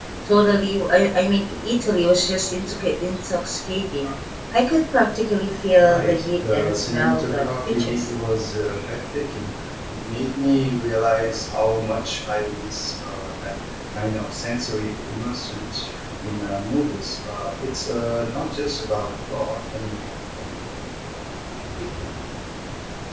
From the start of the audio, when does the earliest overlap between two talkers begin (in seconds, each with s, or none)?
5.8 s